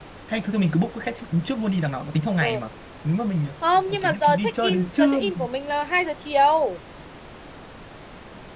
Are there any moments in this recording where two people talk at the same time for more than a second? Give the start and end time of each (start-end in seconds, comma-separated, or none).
3.9-5.2